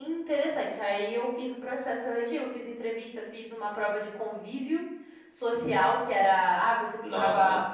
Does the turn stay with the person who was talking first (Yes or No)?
Yes